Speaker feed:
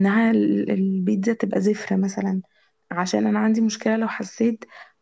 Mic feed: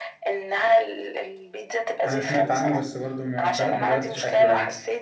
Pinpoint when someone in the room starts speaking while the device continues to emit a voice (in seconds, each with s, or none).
2.0 s